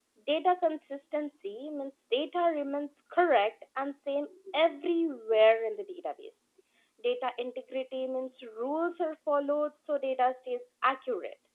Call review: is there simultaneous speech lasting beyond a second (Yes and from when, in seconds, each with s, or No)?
No